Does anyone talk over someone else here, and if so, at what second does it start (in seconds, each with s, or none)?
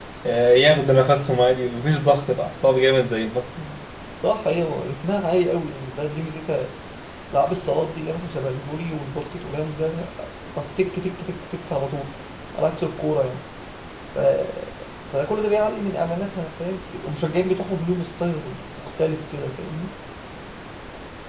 none